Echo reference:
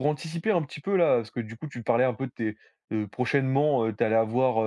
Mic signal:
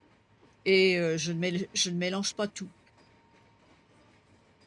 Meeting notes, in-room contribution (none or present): present